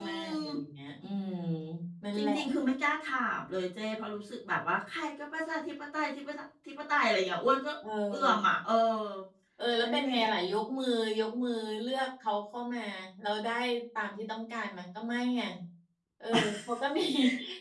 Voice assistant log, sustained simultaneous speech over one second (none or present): none